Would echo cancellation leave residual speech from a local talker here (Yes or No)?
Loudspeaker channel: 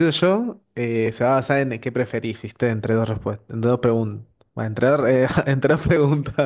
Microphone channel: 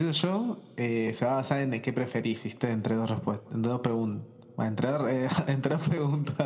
No